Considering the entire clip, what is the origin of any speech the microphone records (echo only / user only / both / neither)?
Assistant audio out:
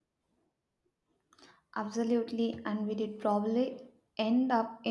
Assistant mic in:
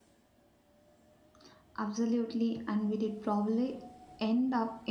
echo only